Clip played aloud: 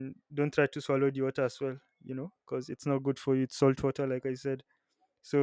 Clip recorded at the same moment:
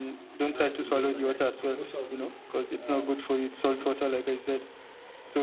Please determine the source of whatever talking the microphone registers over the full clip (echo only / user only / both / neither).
both